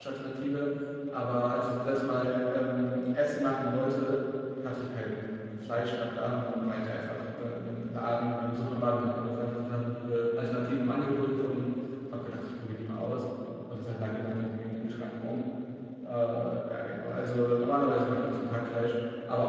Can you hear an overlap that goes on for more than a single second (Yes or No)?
No